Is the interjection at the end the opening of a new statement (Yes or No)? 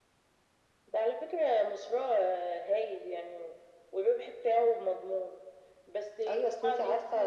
Yes